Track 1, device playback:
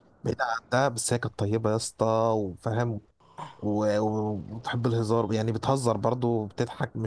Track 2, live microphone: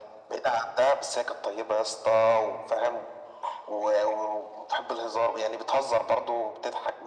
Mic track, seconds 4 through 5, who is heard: echo only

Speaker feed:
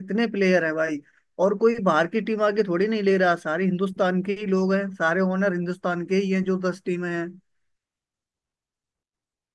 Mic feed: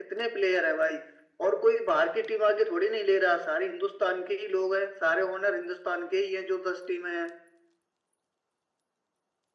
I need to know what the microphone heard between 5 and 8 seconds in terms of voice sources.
echo only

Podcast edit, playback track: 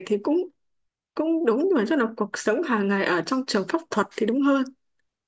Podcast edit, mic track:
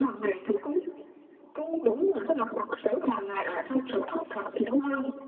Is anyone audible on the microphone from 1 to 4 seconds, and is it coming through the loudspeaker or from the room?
echo only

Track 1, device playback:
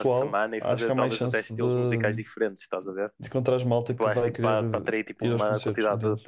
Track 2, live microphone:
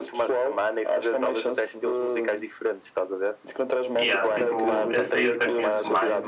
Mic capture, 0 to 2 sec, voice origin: echo only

